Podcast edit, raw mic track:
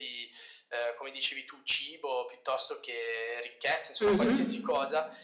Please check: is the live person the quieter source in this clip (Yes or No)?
No